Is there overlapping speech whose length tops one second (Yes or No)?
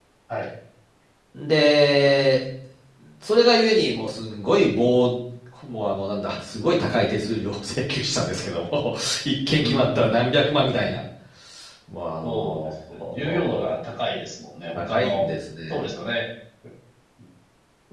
Yes